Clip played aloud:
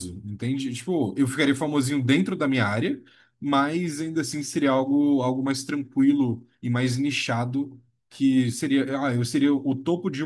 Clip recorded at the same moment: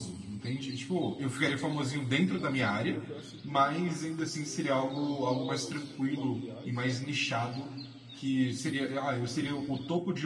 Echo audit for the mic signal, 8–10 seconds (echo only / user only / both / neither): echo only